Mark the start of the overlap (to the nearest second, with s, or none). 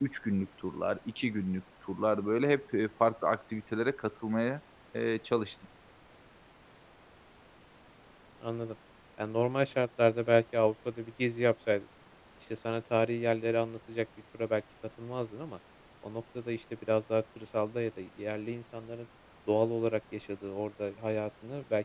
none